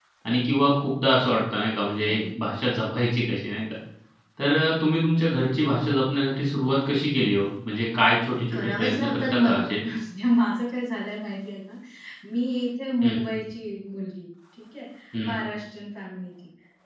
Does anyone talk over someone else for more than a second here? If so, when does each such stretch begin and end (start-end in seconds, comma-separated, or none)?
8.5-9.7